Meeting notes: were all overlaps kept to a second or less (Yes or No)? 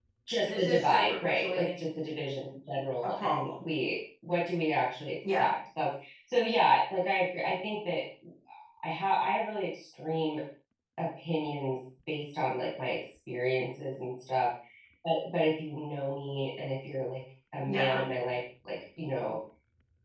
No